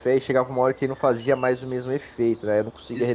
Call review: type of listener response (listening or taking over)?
taking over